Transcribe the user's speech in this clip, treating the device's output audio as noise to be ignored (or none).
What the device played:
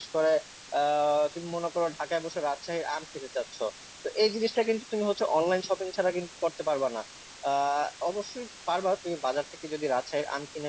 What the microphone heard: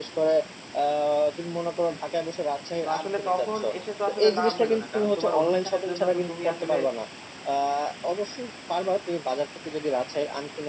তো আসলে তখন এসে তো আসলে লাভ হইলো না কারণ তোমার অনুষ্ঠানের জন্য তো তুমি আসলে